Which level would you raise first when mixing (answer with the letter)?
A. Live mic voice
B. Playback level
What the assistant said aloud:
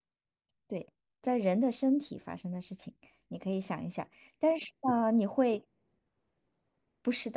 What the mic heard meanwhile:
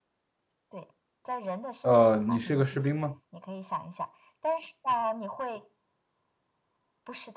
B